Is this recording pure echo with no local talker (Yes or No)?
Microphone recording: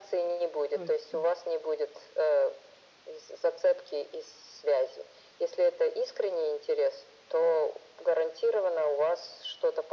No